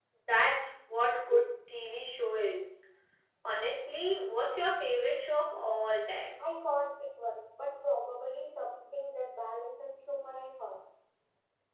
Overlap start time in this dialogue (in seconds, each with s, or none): none